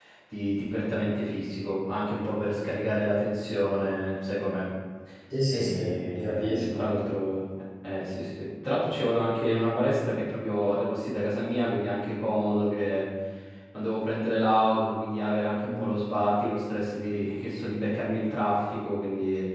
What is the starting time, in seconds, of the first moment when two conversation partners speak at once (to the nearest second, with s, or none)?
6 s